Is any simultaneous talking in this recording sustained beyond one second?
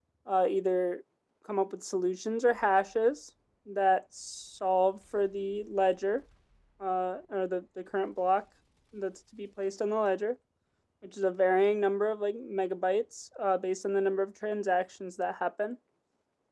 No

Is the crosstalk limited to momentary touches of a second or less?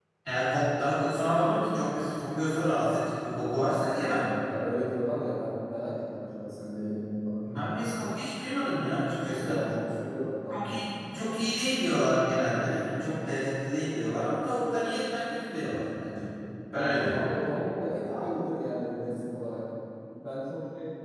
Yes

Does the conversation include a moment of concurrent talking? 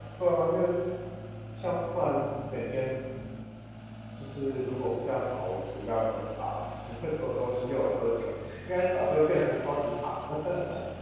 No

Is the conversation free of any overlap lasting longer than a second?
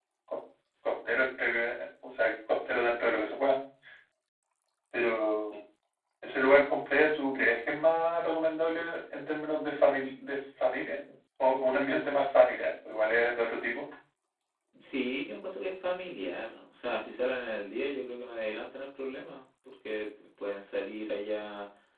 Yes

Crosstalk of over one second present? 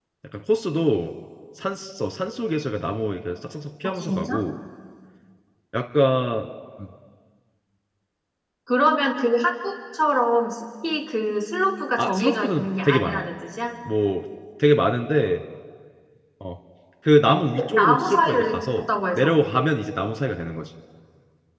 Yes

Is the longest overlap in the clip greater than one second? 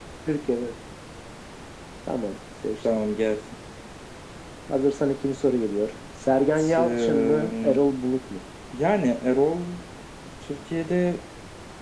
Yes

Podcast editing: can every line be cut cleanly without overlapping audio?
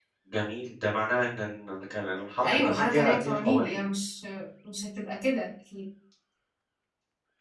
No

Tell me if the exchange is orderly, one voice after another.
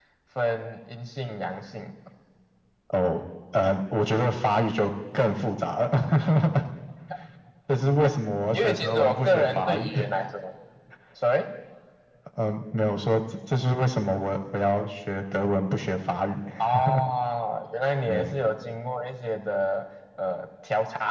No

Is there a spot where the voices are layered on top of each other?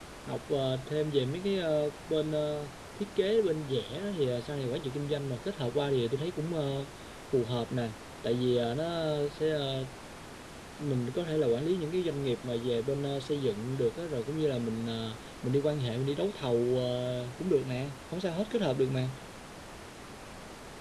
No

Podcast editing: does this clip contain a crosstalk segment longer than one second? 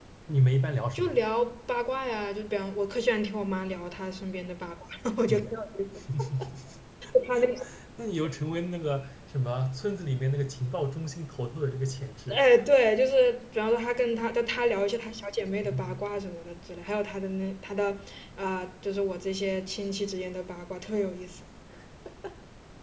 No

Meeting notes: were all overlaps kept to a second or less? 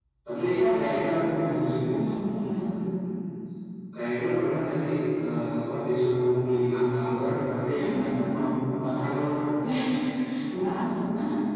Yes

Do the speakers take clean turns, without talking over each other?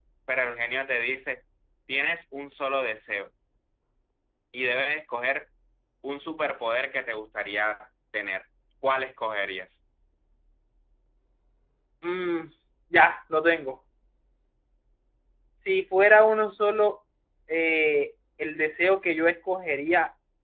Yes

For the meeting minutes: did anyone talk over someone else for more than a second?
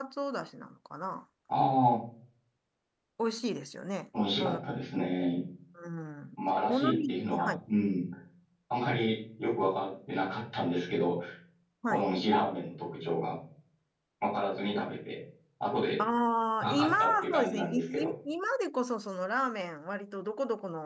Yes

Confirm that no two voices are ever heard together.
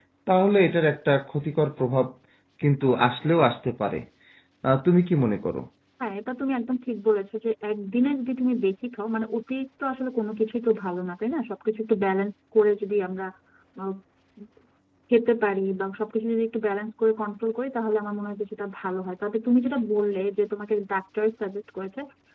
Yes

